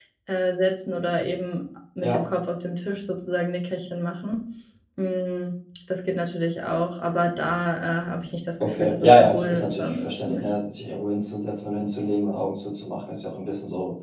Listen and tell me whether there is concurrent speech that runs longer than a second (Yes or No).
Yes